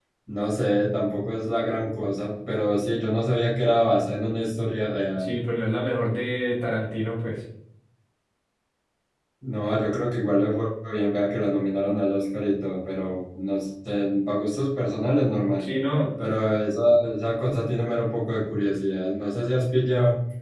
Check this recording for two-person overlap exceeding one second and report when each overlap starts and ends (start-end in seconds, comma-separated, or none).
none